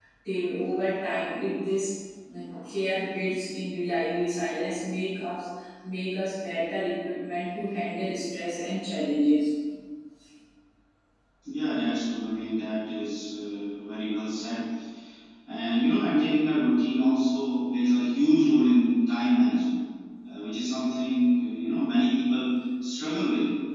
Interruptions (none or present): none